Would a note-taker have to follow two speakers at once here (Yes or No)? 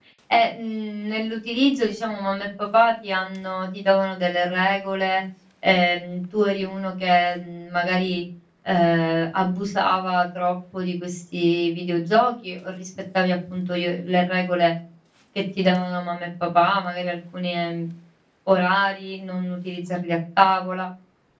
No